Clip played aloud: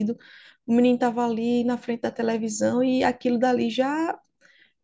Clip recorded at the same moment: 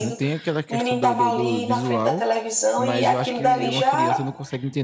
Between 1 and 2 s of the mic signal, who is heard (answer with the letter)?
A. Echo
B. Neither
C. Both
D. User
C